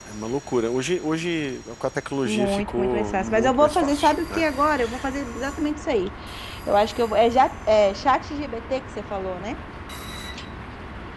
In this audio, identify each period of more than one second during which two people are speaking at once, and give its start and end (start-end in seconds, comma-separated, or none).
2.2-4.4